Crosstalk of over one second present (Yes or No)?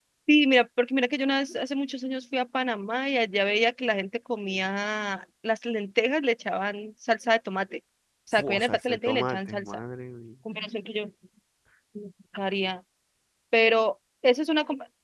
Yes